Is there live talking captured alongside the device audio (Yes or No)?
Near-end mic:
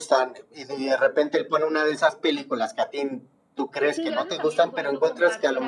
Yes